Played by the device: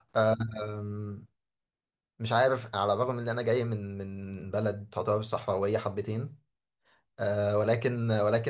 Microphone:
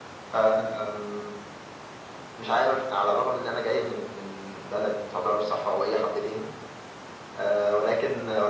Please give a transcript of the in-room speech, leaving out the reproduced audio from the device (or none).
none